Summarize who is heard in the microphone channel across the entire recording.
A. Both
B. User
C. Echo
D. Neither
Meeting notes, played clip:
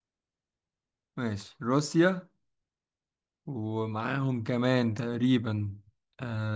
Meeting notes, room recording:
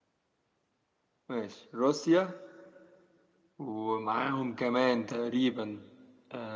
C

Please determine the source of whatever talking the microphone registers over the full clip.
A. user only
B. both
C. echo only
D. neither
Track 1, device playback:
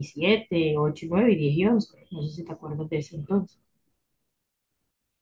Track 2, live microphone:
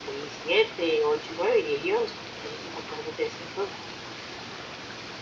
C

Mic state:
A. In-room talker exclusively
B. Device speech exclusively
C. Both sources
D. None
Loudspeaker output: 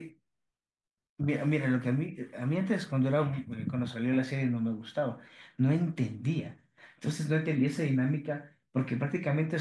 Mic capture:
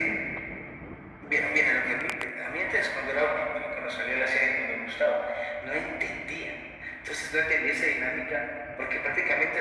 B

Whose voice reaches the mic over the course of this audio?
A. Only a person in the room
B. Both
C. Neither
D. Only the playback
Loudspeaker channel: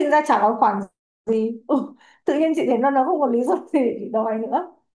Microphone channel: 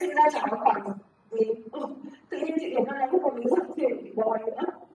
D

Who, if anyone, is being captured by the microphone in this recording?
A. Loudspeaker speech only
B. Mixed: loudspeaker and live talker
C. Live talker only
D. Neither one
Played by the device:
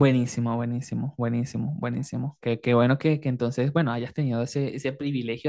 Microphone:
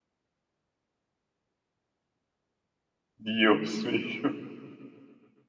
C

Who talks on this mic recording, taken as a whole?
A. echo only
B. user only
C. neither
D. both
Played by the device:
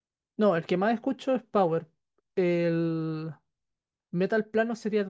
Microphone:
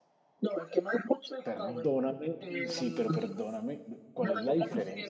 D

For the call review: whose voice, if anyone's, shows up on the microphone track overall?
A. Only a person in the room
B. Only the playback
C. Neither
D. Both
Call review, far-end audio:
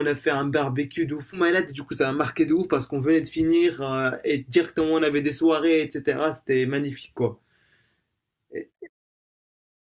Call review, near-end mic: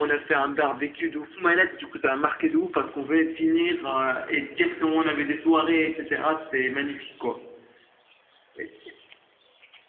B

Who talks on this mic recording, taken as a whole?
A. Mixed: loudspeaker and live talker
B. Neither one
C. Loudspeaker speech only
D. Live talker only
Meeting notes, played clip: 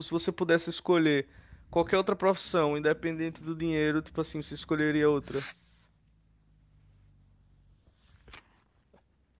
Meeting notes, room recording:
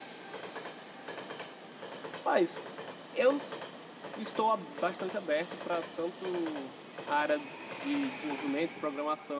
D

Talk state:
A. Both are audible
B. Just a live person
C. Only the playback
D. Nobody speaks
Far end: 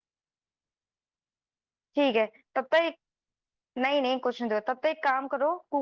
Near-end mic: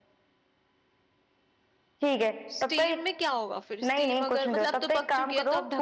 A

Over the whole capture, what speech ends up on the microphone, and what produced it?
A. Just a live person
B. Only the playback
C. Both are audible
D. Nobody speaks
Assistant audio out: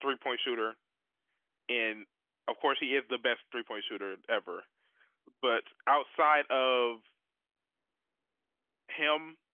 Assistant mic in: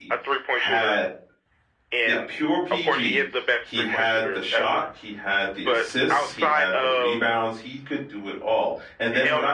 C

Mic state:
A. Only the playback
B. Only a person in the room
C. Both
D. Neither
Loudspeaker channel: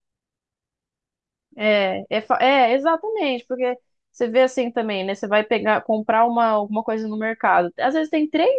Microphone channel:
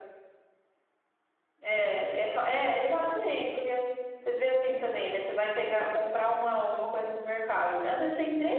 A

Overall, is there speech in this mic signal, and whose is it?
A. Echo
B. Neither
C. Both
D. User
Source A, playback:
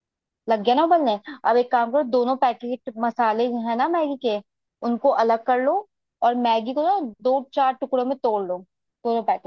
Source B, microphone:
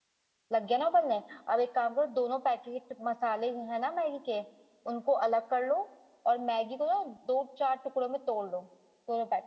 A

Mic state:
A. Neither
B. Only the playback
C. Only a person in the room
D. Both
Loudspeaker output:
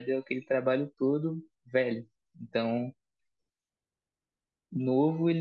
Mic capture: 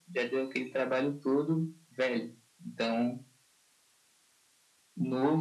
B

